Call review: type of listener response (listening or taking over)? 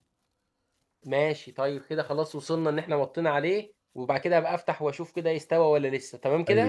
taking over